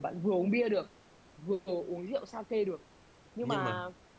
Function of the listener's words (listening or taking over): listening